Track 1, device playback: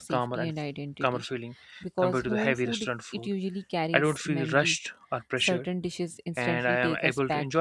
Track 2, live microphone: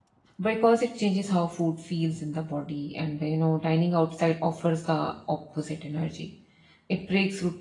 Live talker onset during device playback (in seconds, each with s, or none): 0.4 s